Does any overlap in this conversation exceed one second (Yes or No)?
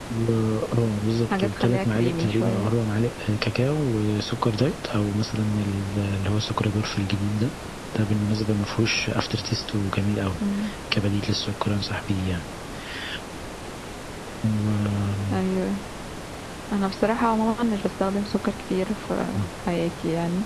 Yes